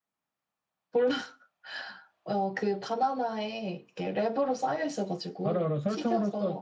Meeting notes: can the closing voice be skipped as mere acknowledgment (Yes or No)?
No